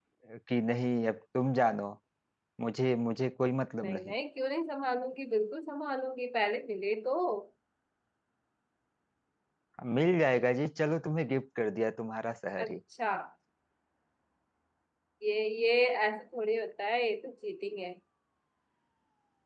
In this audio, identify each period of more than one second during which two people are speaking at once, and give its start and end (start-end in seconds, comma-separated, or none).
none